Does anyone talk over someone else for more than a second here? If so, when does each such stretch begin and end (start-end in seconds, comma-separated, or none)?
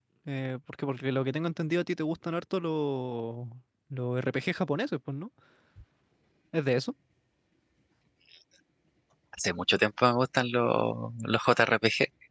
none